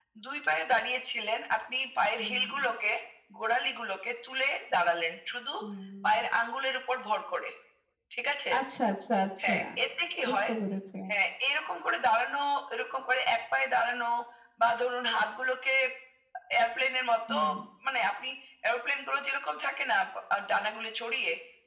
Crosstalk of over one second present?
No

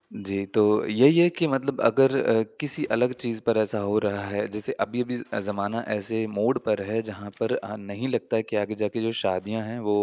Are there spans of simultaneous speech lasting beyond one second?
No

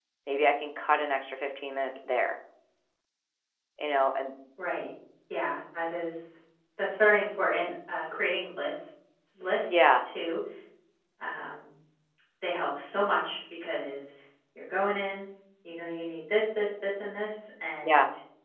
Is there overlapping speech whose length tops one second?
No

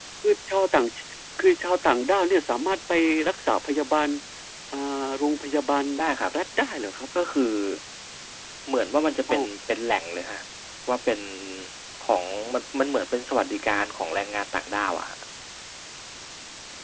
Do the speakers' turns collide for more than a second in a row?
No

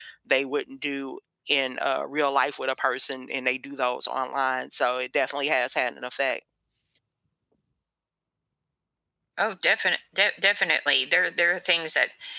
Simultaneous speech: No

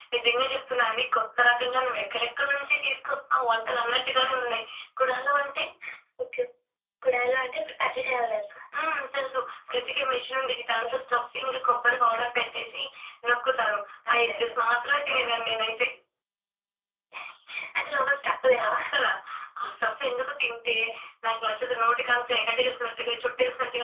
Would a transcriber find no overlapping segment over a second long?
Yes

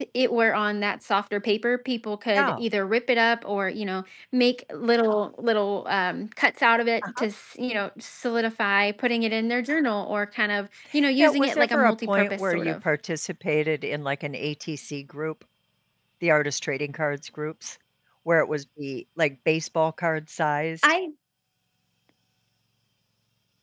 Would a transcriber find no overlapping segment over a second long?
No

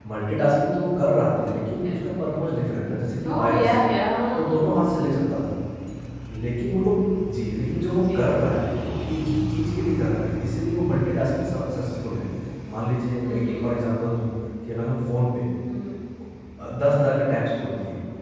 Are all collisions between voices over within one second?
Yes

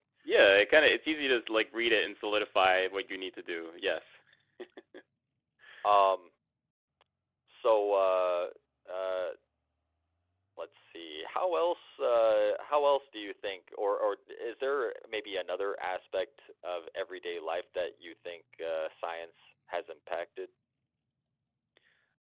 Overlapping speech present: No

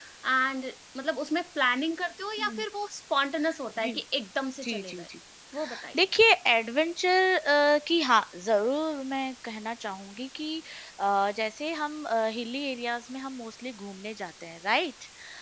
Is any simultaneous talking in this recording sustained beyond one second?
No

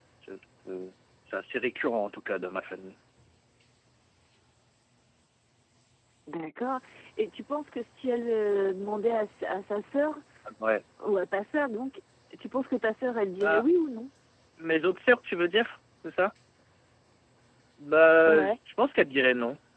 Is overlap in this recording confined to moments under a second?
Yes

